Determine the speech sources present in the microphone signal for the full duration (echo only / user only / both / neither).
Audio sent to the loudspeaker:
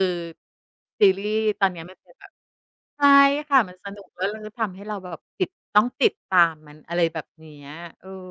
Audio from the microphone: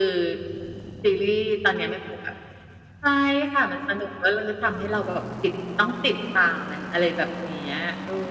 echo only